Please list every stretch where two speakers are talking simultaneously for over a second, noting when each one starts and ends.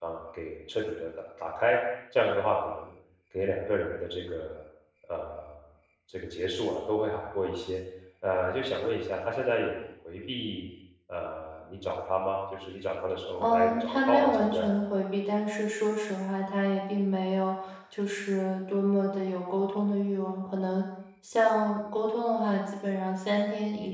13.4-14.7

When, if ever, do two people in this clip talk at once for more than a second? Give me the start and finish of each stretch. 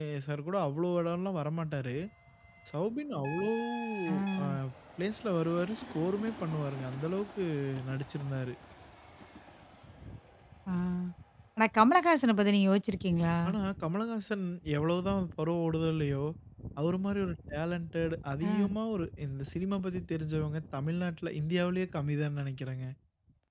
none

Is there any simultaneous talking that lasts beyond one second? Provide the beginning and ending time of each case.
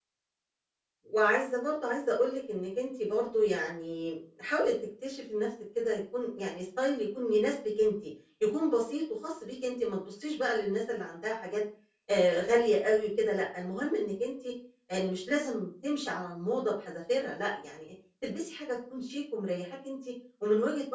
none

